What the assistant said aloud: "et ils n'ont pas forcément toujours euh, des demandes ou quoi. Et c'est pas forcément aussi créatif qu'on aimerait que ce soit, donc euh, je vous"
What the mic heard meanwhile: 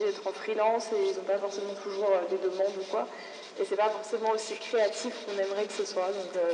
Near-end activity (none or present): none